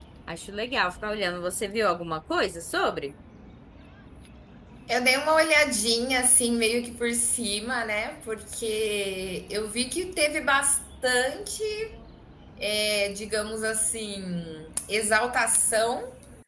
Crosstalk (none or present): none